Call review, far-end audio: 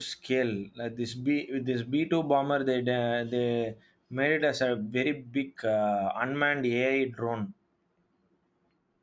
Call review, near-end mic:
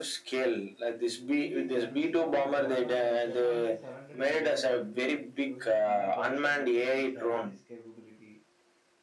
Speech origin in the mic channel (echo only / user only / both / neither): both